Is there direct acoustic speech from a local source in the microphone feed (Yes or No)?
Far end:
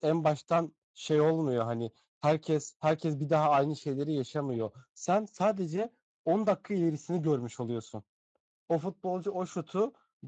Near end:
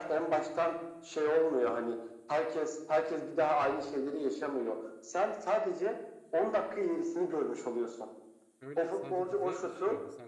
Yes